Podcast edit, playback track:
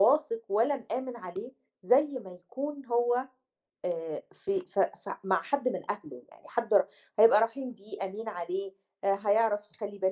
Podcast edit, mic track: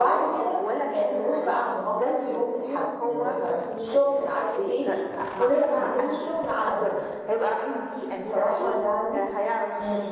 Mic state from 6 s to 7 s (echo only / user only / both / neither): both